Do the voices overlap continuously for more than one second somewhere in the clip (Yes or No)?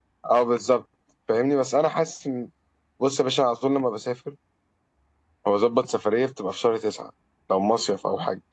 No